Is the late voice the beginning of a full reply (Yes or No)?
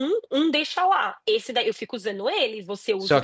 Yes